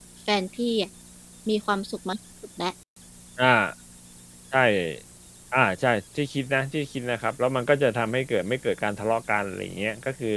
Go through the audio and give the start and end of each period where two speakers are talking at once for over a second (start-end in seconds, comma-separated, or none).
none